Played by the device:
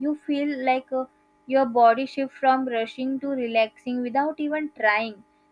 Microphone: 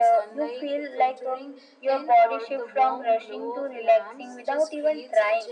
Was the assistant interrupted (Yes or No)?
Yes